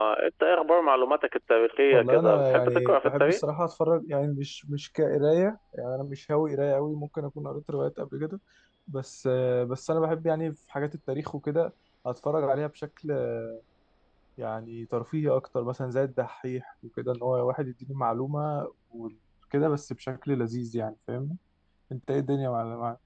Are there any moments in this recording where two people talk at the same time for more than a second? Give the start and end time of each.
1.9-3.4

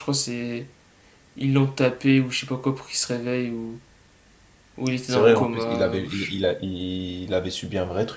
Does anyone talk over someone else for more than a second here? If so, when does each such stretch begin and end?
5.1-6.3

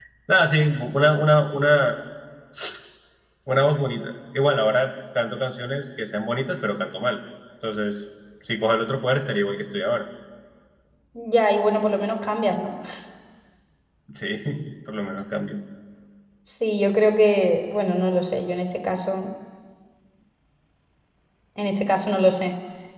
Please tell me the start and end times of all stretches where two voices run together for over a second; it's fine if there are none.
none

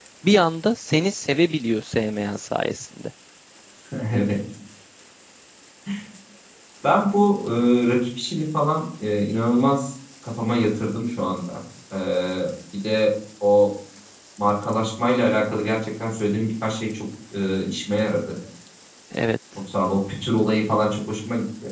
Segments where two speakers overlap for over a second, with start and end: none

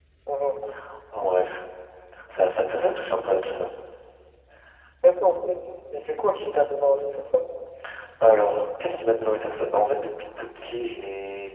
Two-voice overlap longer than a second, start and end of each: none

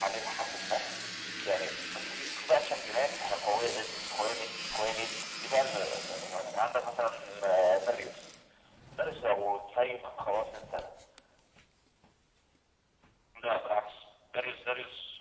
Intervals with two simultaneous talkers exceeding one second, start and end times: none

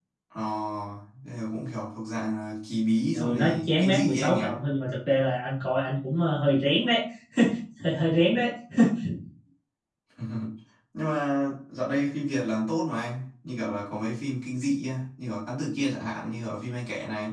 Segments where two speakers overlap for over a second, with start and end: 3.1-4.4

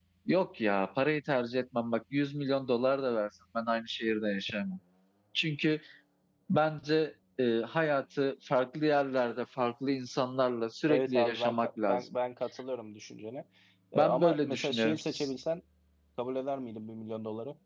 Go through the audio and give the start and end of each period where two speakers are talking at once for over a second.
10.9-12.2, 13.9-15.3

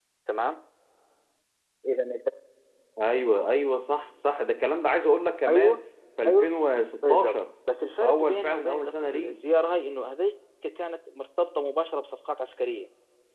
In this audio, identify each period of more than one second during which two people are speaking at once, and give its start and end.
8.0-9.3

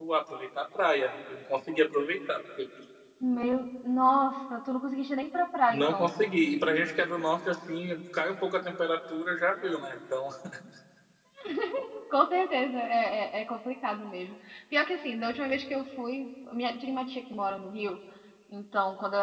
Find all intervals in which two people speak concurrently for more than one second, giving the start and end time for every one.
none

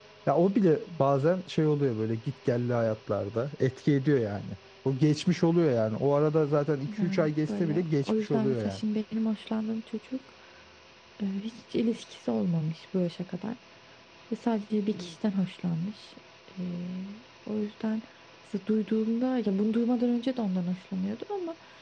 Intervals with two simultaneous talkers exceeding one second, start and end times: 7.0-8.8

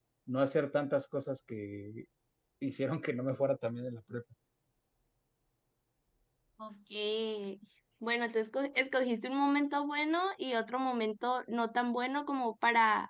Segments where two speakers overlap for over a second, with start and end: none

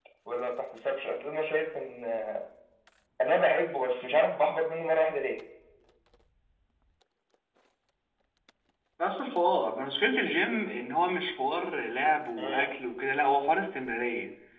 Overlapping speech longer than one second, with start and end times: none

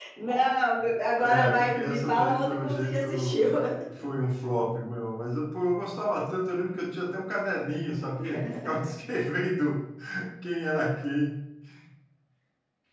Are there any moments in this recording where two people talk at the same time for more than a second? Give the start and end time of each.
1.2-3.4

